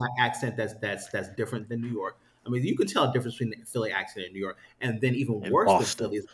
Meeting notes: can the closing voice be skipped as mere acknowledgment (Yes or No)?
Yes